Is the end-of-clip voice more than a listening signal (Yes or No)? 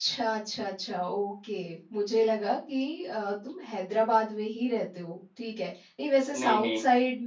No